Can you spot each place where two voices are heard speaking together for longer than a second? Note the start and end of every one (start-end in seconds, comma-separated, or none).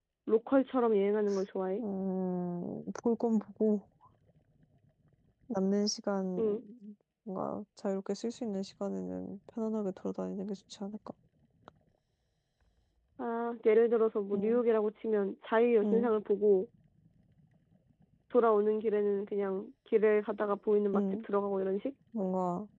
none